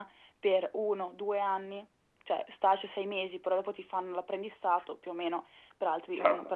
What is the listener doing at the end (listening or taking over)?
listening